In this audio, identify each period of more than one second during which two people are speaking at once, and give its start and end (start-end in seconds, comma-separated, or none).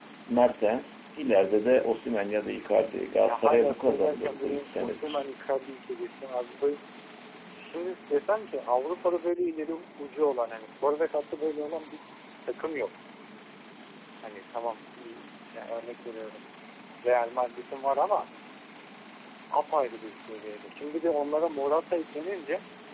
3.2-5.2